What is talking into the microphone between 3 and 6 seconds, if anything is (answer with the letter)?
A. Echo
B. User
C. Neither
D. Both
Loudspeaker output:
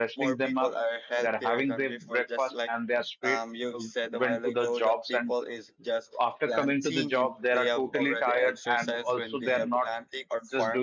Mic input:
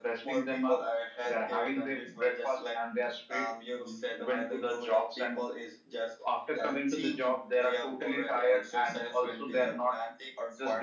A